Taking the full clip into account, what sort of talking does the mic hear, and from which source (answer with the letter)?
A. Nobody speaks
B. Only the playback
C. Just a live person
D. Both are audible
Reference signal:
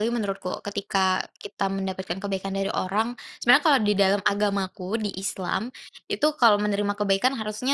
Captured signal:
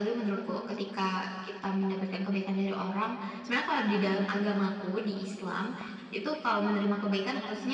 B